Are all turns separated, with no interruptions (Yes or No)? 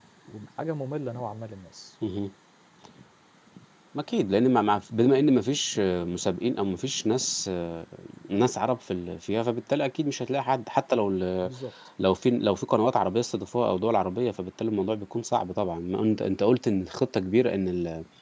Yes